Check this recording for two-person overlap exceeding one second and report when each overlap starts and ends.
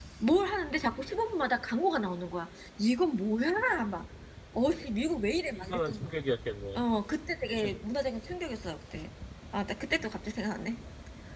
none

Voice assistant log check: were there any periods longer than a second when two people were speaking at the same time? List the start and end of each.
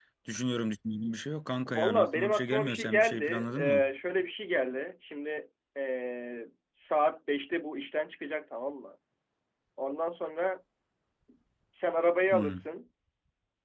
1.6-3.9

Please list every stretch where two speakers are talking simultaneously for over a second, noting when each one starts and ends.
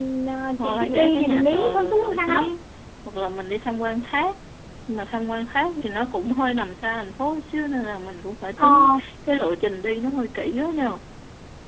0.6-2.4

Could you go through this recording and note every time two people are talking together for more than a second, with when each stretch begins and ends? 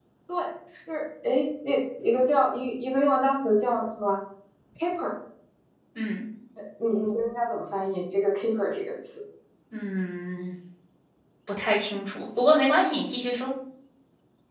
none

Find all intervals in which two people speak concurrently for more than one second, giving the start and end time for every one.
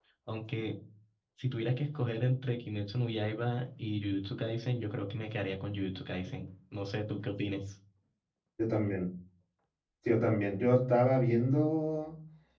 none

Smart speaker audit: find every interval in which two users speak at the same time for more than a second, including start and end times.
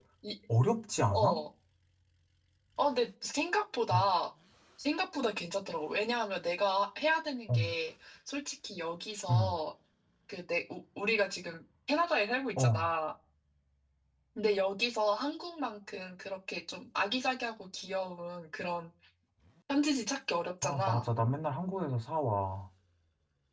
none

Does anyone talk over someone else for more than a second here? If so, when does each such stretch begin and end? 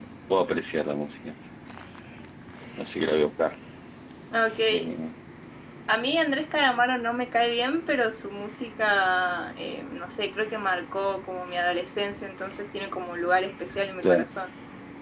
none

